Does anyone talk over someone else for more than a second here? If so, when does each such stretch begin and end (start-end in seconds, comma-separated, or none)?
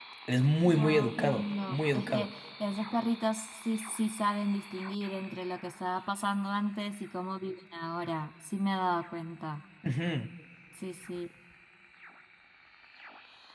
0.6-2.3